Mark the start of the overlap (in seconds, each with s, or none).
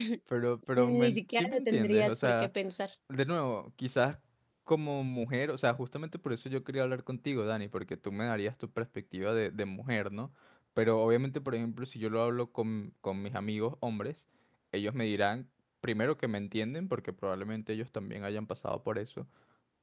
0.8 s